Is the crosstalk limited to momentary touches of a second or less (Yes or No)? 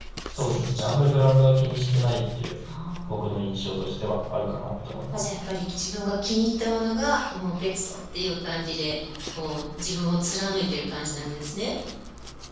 Yes